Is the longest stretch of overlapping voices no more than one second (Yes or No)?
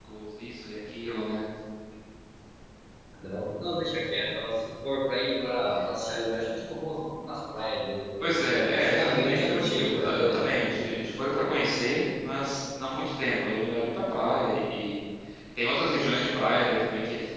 No